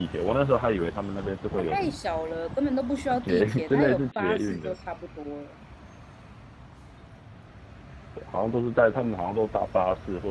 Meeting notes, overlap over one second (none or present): present